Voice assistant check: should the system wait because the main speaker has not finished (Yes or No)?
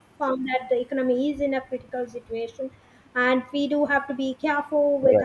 Yes